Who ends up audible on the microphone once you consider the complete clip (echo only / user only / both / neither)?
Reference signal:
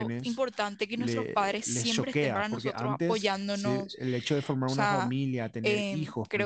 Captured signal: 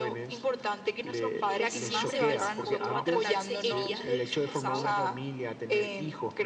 both